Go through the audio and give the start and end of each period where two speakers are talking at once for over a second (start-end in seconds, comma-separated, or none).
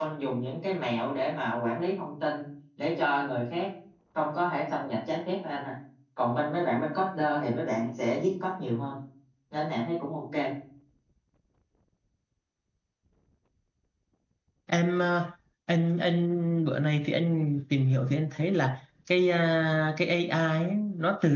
none